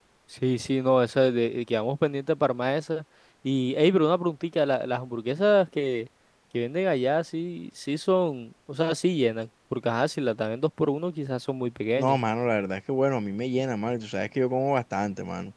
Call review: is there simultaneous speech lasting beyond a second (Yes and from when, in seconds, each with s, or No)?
No